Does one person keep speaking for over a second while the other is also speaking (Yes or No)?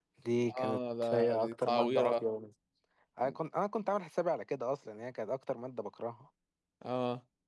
Yes